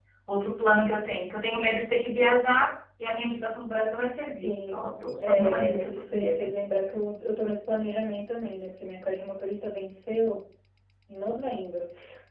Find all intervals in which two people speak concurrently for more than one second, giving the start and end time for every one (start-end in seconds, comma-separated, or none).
5.2-6.5